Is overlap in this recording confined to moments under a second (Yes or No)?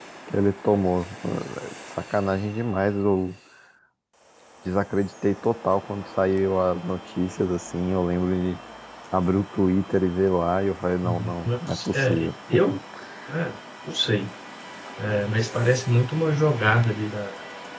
No